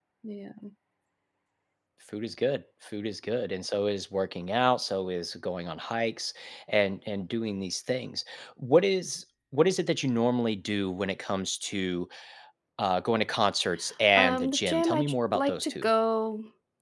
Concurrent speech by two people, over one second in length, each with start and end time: 14.2-15.9

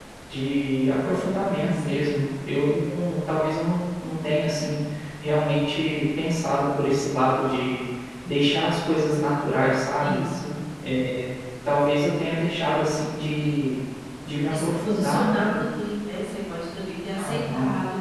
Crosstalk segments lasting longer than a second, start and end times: 14.5-15.9

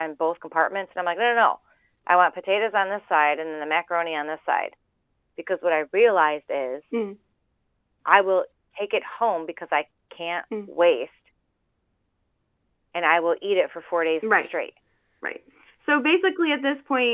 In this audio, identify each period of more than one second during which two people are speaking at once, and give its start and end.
none

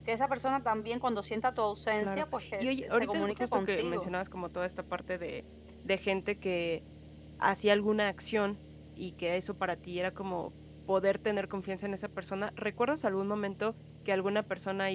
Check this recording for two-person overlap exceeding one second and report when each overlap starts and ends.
2.0-4.1

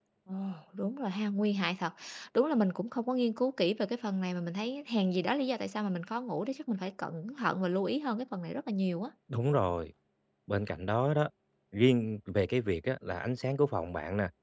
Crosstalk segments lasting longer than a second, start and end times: none

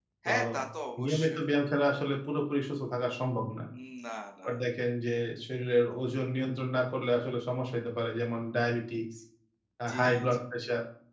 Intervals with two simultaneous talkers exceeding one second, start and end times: none

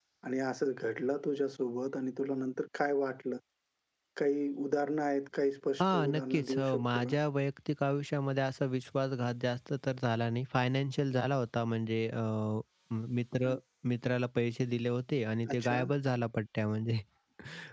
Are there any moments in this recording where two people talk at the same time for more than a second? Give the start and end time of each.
5.8-7.1

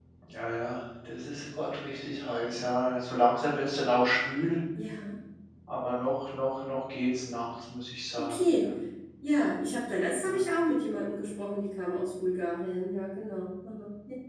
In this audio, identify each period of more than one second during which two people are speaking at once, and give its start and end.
none

